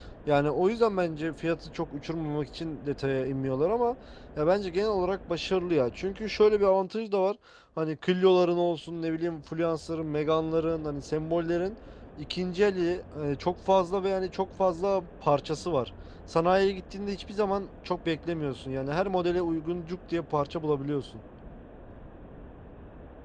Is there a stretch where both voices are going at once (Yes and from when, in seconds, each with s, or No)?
No